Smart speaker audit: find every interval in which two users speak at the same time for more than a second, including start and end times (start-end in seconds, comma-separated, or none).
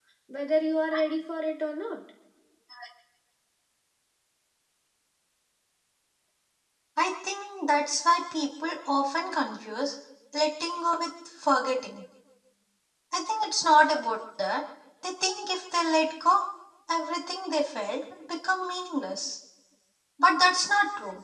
none